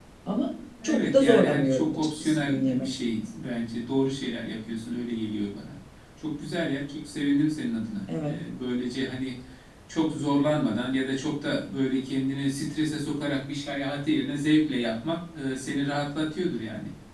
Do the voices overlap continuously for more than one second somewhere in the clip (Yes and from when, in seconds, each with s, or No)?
Yes, from 0.8 s